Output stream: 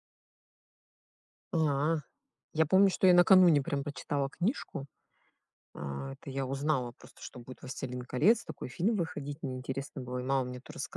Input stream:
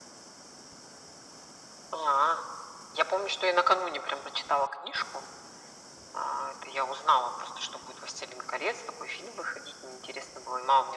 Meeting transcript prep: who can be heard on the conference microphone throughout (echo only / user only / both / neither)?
echo only